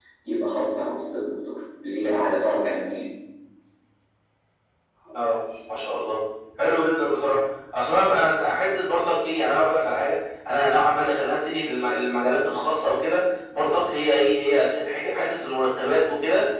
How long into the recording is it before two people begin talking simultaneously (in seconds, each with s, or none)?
none